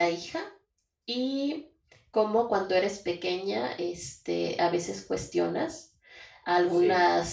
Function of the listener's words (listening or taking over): listening